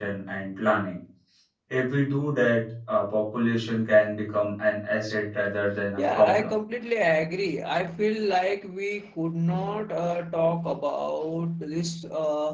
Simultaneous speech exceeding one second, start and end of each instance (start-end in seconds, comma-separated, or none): none